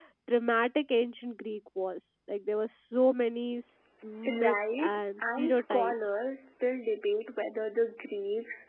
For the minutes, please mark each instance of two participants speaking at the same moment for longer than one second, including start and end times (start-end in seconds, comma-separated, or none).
4.4-5.9